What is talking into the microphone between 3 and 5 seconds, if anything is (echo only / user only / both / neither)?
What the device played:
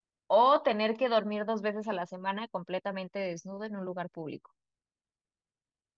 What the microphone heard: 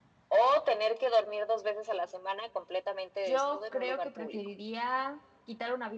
both